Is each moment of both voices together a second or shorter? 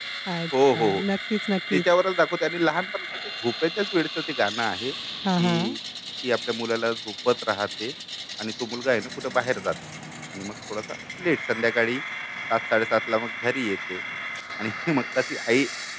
Yes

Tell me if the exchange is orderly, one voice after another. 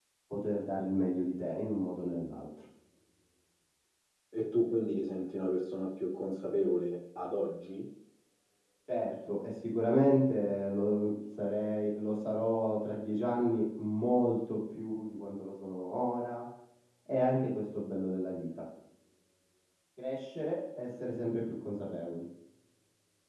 Yes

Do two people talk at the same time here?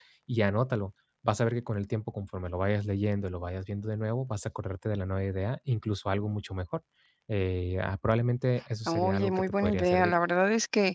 Yes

